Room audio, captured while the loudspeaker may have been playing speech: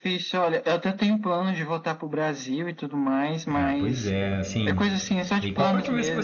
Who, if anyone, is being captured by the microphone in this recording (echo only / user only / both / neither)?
both